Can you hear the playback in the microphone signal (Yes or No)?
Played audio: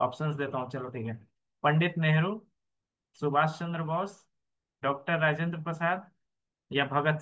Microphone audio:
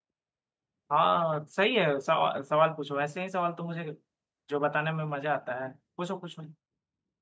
No